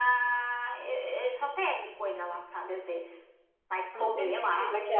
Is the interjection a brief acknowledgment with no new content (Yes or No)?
No